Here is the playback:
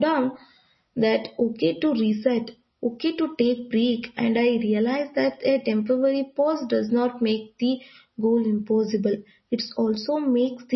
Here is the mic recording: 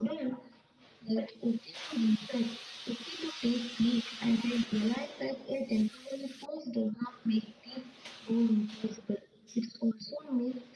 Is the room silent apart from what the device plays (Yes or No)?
Yes